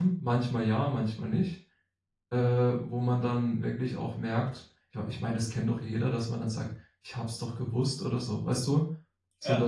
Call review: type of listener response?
listening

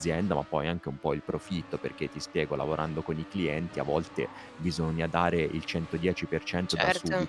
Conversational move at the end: listening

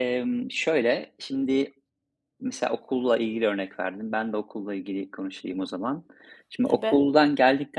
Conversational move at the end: listening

